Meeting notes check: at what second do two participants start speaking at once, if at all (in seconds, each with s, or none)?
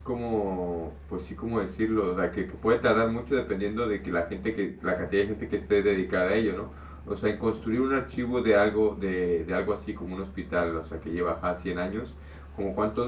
none